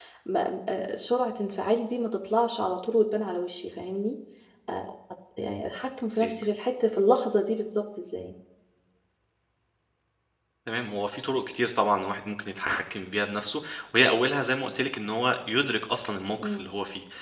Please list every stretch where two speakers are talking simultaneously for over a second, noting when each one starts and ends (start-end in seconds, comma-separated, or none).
none